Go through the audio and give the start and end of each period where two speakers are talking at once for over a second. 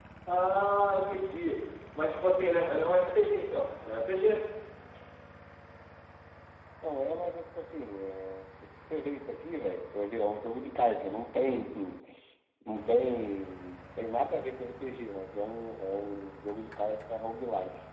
none

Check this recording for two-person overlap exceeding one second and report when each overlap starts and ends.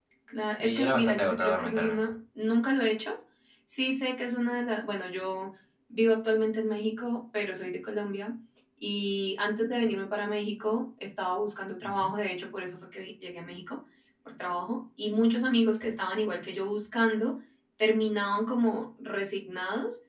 0.6-2.0

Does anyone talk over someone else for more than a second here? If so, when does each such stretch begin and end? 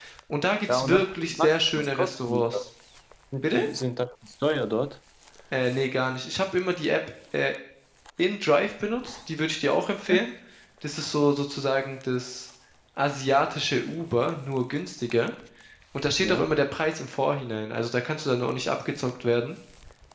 0.7-2.4

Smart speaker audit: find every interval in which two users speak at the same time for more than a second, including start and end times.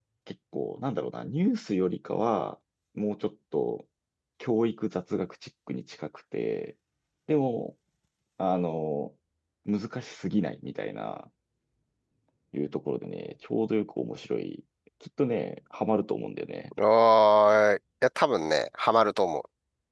none

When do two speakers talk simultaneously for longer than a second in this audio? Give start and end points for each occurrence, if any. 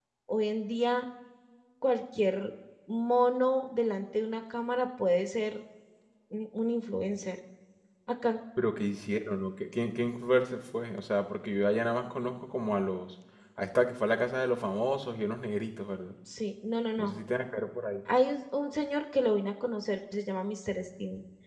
none

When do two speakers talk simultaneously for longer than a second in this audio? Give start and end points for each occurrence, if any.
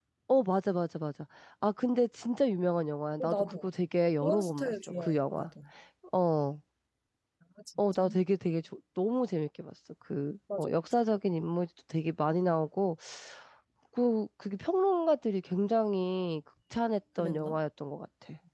4.2-5.5

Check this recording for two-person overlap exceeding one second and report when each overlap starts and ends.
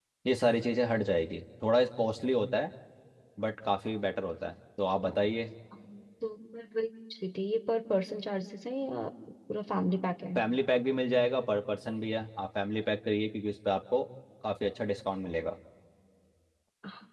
none

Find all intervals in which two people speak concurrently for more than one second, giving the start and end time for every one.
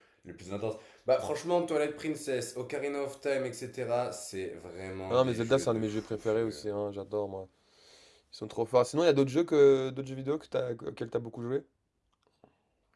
5.1-6.6

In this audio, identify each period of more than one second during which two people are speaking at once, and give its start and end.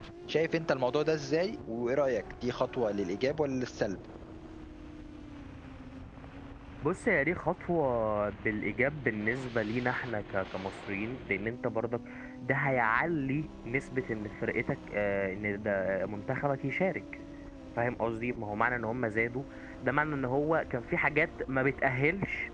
none

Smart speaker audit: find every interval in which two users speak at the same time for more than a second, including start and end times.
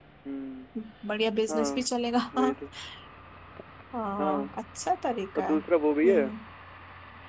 none

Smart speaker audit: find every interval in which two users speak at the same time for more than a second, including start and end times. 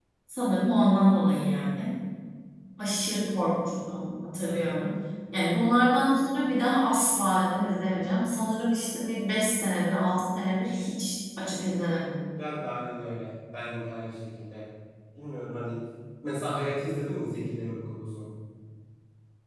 none

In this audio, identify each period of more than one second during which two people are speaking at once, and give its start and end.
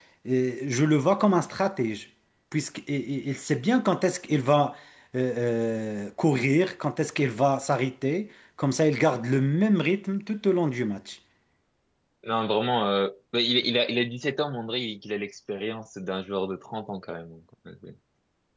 none

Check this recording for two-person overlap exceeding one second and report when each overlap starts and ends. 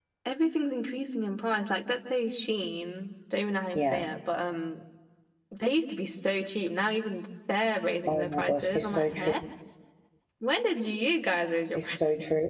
8.1-9.3

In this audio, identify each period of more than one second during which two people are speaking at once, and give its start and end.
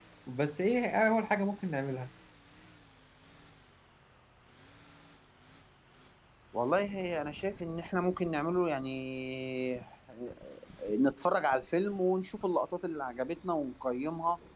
none

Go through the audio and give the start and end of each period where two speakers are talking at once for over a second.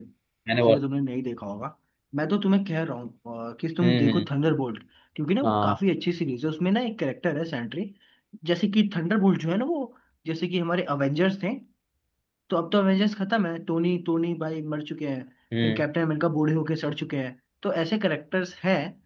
none

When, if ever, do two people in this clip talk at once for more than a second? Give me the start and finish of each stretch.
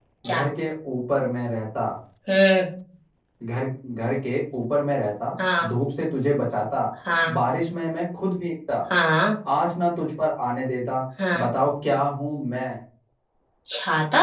none

